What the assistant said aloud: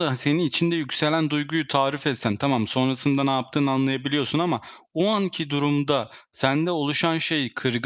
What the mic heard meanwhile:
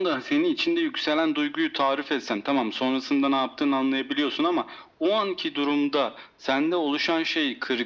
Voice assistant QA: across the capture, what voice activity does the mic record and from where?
echo only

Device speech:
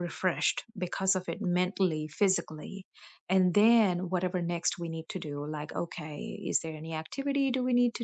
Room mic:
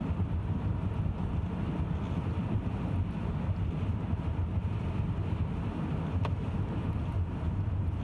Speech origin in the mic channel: neither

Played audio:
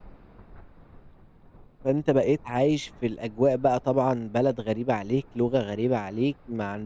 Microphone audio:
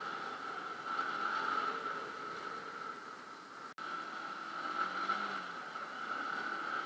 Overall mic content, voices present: neither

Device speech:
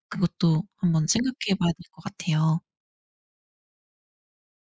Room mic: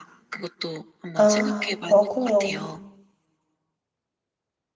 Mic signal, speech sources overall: both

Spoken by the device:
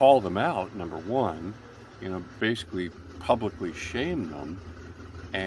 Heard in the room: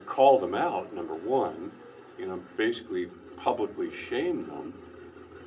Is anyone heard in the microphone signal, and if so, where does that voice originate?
echo only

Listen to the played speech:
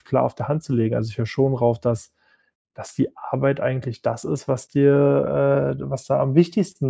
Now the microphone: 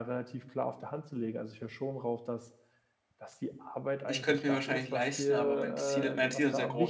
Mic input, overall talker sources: both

